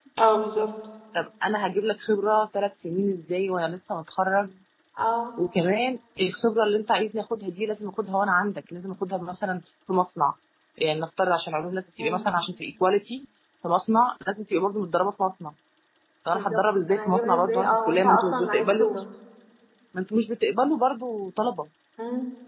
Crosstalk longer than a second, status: present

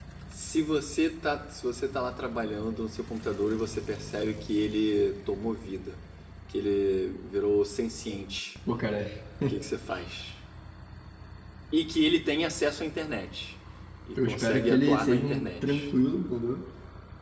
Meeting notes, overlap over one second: present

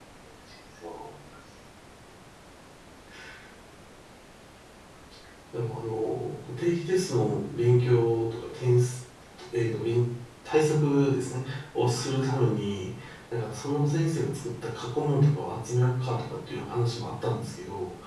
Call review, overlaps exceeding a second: none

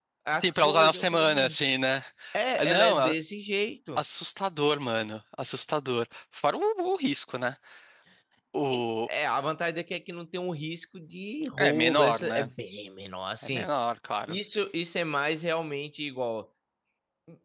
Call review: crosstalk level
present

